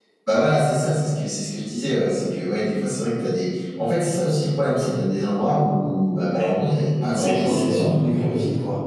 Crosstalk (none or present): present